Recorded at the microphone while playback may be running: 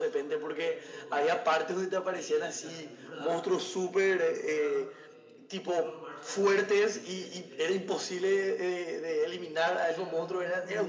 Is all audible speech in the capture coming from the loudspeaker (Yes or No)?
No